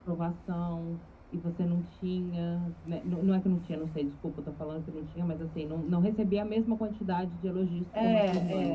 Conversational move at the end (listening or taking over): taking over